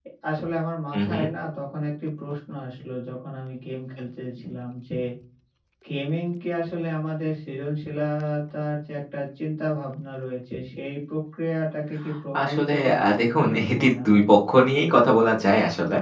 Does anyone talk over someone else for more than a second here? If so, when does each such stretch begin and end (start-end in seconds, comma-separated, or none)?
12.4-14.2